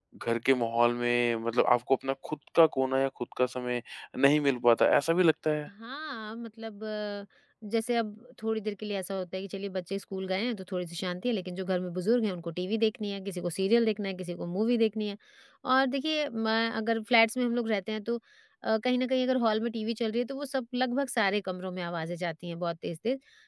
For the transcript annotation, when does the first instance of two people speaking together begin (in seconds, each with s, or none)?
none